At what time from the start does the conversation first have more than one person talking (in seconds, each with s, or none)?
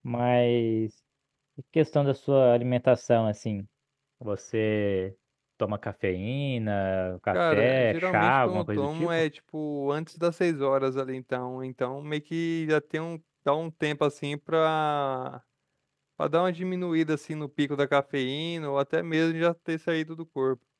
7.3 s